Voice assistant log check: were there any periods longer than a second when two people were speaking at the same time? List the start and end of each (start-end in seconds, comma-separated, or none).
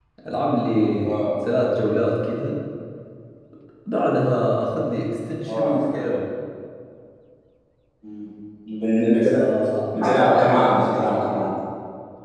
10.0-11.5